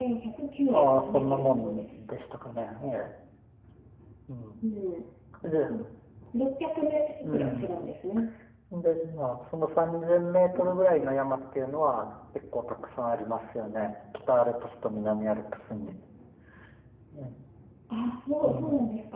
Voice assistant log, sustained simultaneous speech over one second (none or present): present